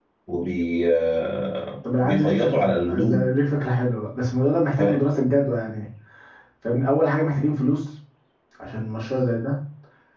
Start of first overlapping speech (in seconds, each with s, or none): 1.8 s